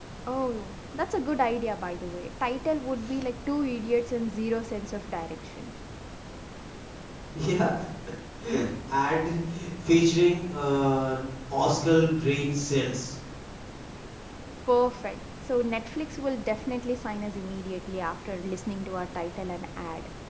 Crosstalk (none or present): none